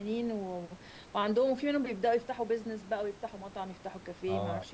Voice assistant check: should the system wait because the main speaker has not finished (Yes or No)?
No